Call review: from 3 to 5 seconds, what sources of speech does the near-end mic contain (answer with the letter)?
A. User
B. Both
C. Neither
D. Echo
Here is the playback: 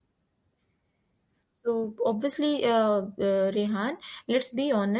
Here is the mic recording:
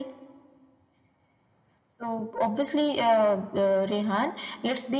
D